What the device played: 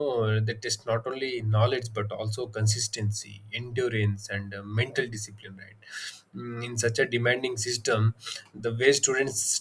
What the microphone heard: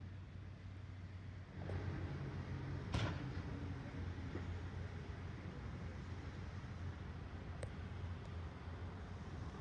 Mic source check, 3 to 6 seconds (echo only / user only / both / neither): neither